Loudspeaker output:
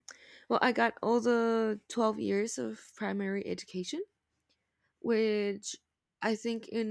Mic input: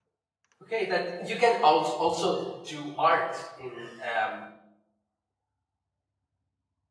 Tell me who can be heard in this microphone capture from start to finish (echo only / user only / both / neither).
user only